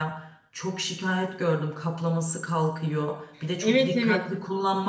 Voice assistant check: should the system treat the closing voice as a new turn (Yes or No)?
No